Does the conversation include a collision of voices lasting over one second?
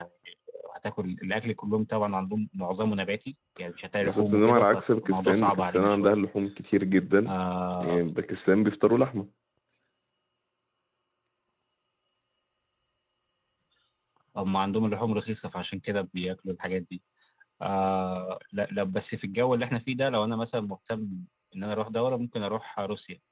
Yes, from 4.0 s

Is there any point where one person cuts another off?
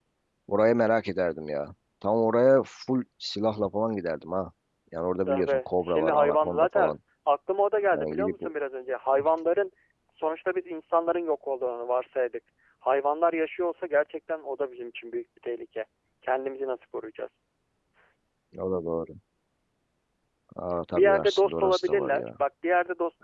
Yes, from 5.3 s

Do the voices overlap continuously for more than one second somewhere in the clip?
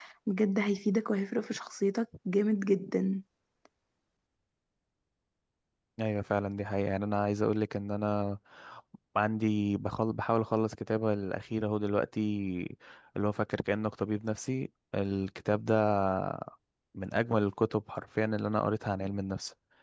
No

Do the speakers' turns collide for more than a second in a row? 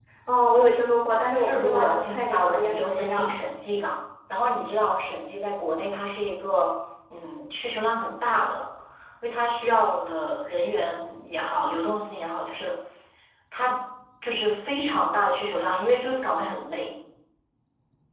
Yes, from 1.4 s

